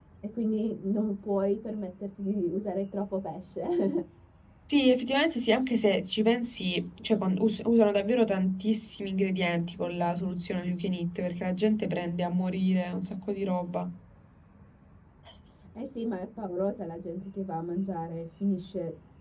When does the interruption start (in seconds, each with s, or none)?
none